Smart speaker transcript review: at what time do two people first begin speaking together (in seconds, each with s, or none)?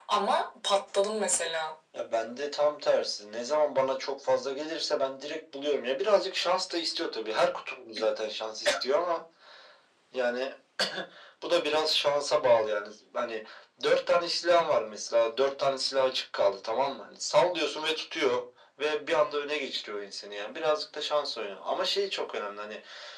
none